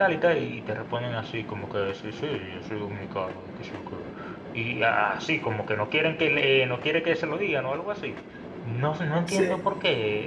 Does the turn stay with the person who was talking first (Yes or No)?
Yes